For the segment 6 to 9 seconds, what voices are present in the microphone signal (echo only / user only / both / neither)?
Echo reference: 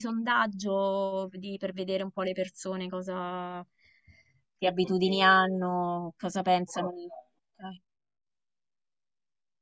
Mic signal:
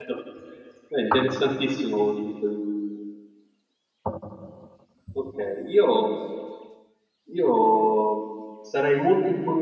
user only